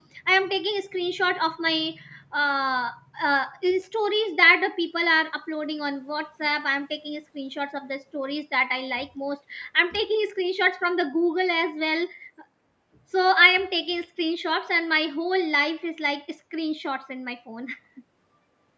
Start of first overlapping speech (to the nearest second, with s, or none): none